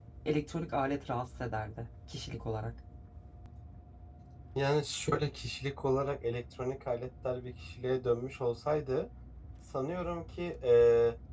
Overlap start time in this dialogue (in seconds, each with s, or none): none